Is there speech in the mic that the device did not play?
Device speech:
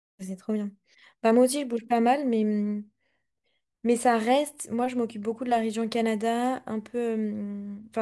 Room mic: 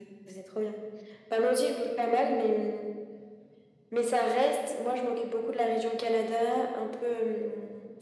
No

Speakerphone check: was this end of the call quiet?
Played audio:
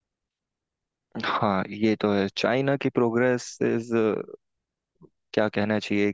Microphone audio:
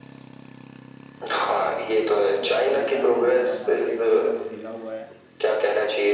No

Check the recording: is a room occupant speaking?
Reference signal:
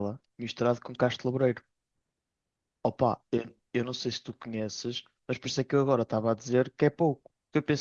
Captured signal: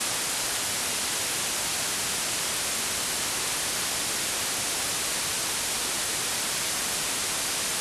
No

